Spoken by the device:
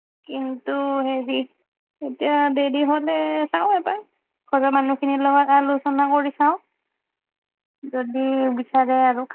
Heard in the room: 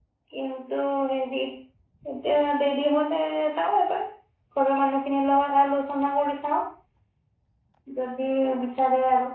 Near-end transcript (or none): none